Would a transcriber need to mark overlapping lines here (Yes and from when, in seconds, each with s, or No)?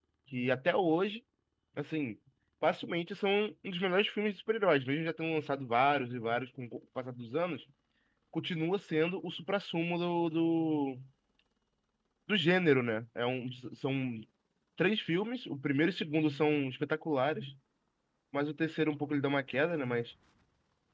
No